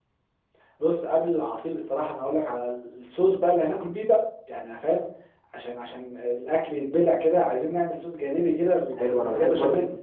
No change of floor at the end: No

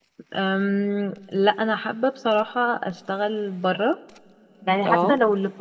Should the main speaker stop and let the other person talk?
No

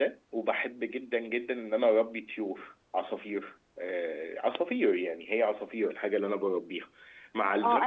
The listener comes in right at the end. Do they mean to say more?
Yes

